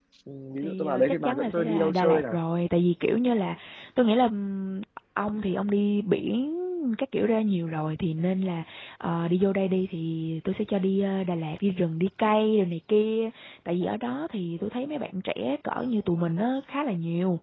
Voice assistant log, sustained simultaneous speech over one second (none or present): present